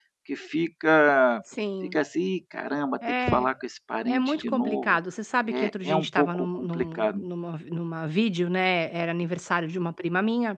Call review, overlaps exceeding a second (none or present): present